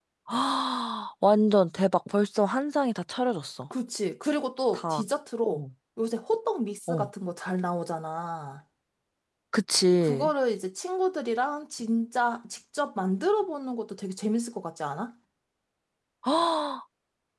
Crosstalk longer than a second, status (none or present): none